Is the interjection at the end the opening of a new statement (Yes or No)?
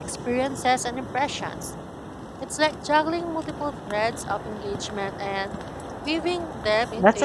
Yes